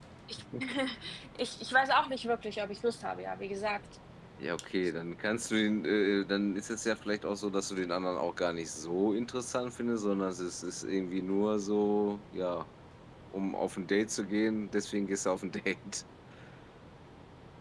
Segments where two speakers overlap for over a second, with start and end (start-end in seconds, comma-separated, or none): none